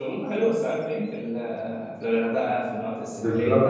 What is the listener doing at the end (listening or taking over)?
taking over